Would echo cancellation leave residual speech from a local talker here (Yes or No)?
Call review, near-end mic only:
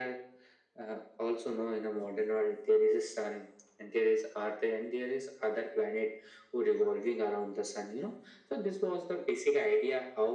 No